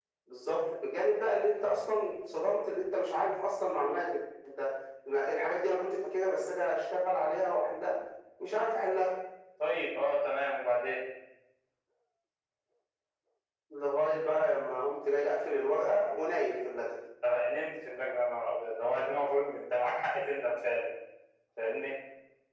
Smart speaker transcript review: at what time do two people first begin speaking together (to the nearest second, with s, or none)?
none